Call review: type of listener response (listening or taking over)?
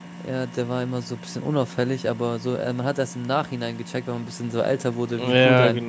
taking over